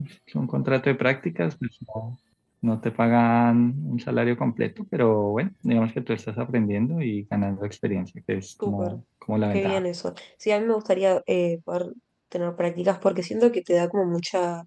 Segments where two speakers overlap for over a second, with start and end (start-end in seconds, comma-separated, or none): none